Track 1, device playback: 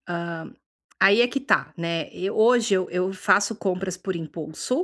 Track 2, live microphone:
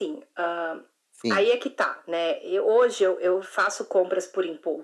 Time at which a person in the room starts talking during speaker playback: 1.1 s

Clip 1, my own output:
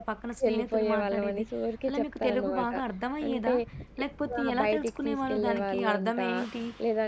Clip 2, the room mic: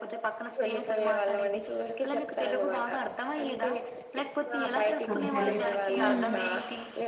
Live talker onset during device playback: 5.1 s

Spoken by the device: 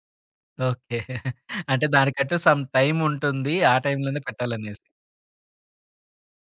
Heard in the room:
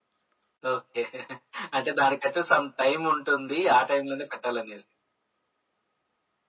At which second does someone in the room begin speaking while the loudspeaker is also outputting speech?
none

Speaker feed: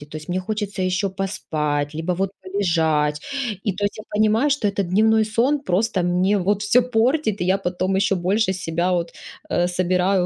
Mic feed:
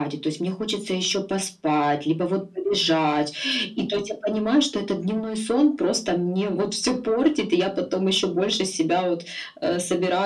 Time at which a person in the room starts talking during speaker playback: none

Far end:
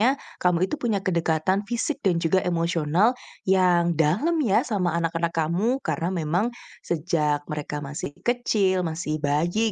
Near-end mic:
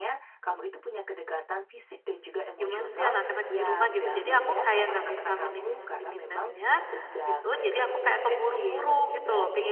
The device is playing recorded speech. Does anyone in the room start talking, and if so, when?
2.6 s

